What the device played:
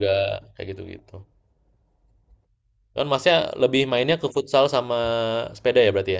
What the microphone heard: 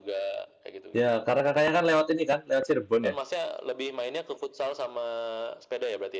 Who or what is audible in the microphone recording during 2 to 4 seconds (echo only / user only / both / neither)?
both